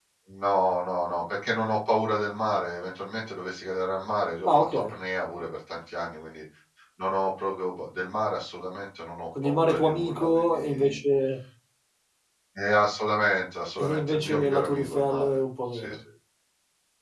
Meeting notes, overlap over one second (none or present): present